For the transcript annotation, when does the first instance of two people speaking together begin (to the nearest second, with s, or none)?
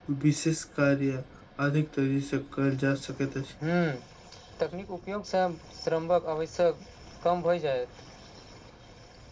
none